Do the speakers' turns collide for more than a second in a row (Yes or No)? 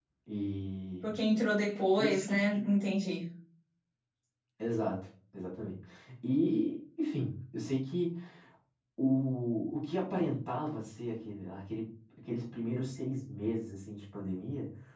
No